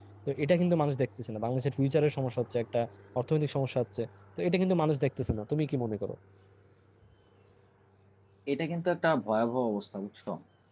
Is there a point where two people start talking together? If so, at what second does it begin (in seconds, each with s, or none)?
none